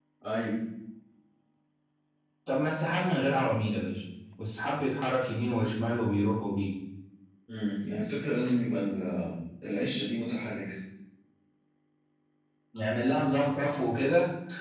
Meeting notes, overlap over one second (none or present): none